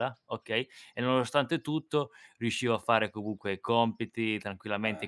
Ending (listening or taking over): listening